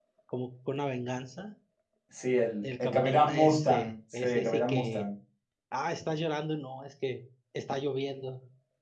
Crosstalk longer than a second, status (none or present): present